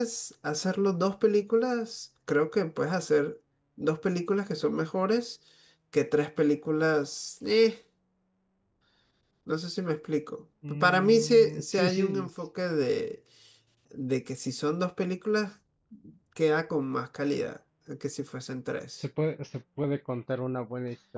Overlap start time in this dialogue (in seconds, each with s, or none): 10.6 s